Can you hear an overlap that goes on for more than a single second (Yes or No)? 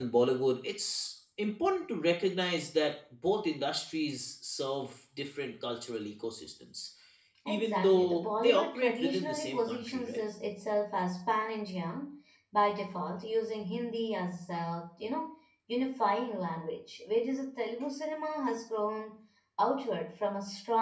Yes